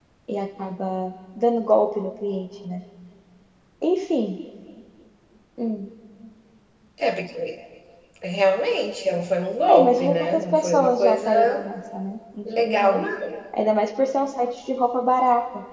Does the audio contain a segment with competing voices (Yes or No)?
Yes